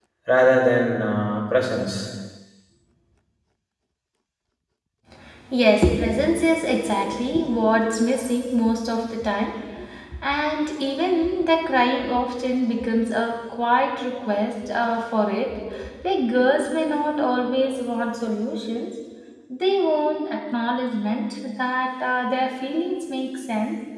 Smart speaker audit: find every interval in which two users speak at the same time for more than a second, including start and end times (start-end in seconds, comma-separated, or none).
none